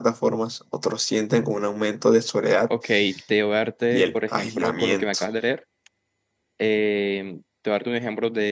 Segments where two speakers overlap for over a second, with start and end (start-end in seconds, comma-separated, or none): 3.9-5.2